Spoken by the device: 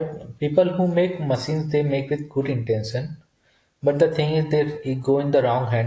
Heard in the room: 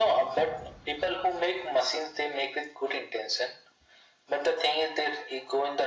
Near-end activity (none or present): none